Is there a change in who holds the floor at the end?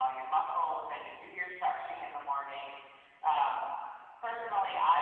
No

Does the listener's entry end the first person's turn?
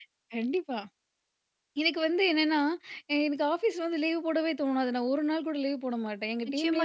Yes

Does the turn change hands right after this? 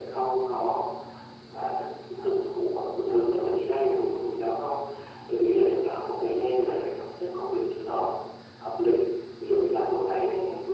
No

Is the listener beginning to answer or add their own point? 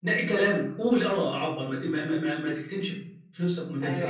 Yes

